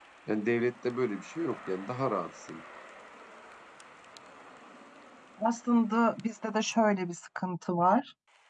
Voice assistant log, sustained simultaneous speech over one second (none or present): none